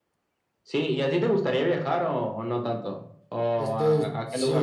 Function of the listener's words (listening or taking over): taking over